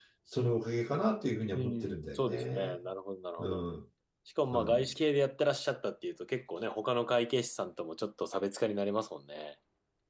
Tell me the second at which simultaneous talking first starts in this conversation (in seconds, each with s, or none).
1.6 s